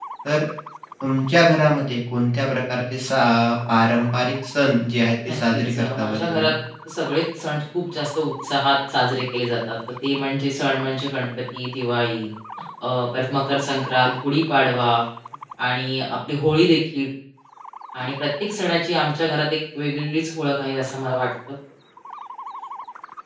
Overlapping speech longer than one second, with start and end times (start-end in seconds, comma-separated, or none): 5.3-6.5